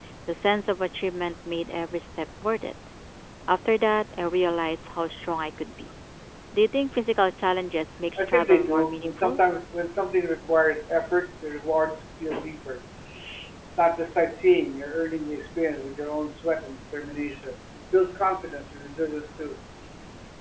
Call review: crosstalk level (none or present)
present